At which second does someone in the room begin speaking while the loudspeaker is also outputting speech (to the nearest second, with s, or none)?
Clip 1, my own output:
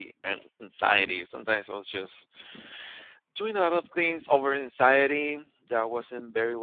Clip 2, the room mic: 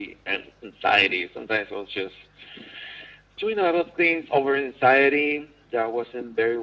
none